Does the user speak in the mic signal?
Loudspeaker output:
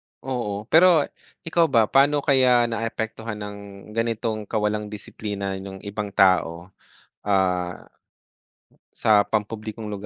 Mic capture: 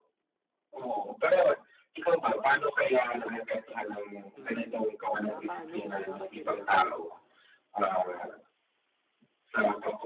Yes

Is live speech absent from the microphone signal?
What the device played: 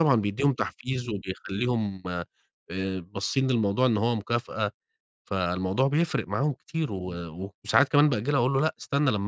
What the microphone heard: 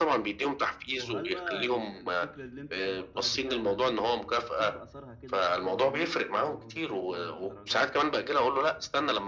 No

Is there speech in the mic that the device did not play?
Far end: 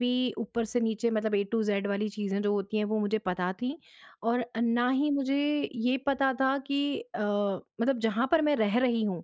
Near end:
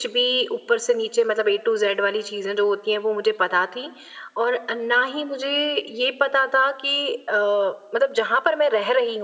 No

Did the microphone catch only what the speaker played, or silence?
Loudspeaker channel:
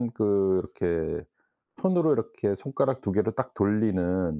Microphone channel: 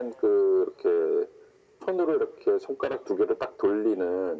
Yes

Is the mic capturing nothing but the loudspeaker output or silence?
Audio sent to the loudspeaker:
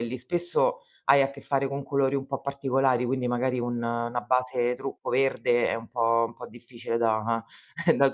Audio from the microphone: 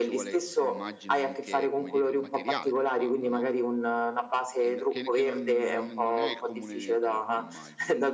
No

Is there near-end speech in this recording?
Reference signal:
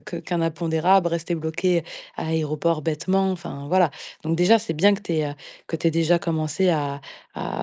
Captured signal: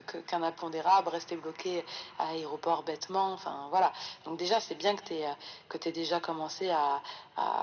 No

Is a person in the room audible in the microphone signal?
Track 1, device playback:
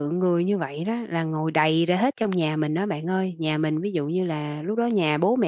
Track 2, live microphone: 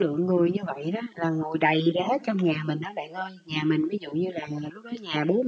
No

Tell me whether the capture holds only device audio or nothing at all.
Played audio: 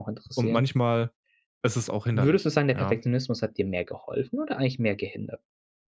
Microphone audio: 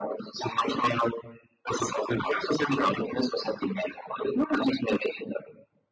Yes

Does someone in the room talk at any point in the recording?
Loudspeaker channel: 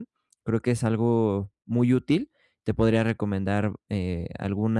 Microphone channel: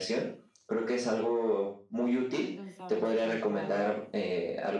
Yes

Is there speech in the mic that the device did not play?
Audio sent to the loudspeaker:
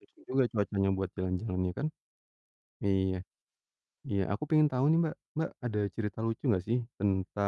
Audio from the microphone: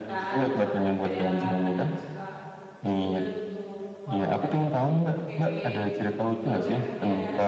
Yes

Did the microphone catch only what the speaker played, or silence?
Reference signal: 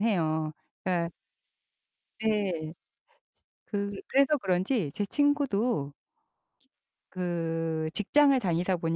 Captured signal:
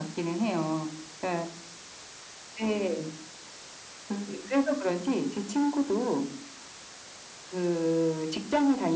Yes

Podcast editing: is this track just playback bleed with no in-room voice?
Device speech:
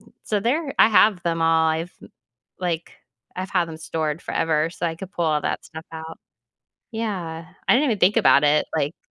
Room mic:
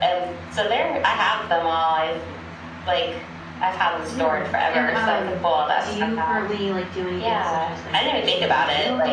No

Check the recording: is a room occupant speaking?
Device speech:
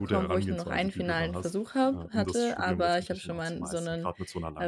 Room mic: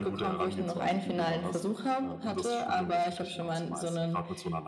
No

